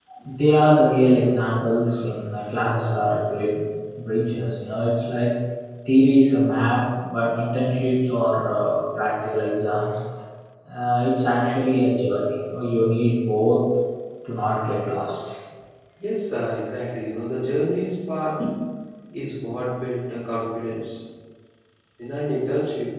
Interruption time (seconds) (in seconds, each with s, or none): none